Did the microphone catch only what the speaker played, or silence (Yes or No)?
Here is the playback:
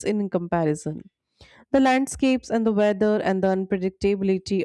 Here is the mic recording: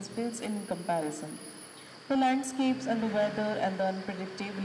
Yes